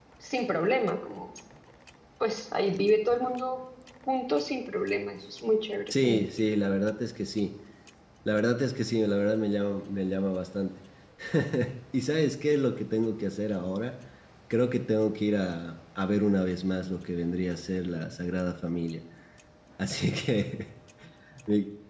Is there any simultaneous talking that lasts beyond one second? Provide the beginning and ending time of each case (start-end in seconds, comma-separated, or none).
none